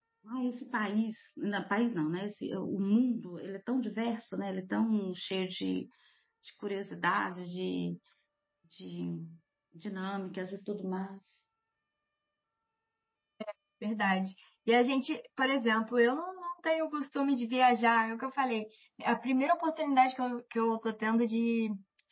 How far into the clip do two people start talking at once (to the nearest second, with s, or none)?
none